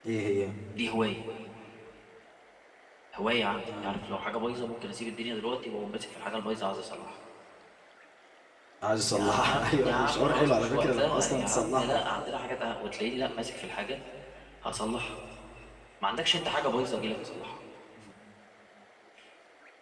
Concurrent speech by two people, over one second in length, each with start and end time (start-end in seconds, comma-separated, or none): 9.2-12.0